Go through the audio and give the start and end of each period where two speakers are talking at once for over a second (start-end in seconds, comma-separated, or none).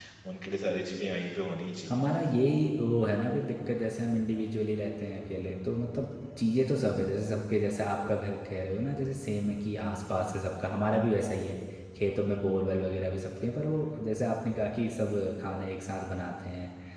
none